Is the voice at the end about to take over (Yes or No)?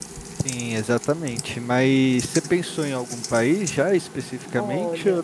Yes